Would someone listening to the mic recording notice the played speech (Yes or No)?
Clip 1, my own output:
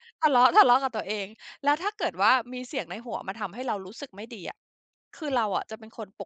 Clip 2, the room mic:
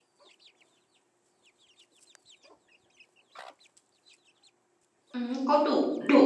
No